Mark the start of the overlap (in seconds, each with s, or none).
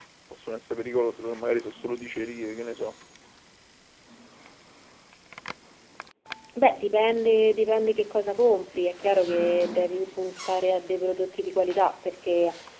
none